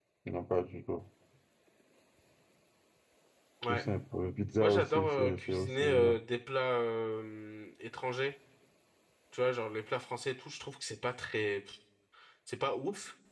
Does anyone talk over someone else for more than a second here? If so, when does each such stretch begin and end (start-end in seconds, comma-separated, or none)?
4.6-6.2